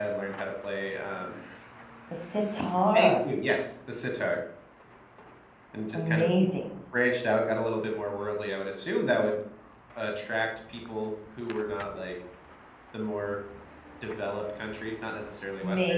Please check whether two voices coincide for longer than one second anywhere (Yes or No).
No